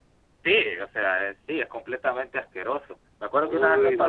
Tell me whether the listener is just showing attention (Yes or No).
Yes